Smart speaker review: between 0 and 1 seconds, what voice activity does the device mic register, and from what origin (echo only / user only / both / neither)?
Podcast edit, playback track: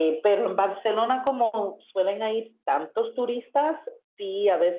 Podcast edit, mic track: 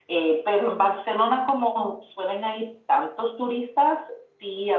echo only